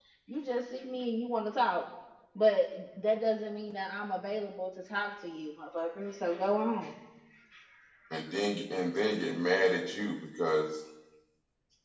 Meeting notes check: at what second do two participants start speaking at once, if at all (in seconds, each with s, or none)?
none